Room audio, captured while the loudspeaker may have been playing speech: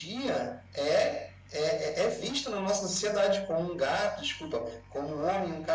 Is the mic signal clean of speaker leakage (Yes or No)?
No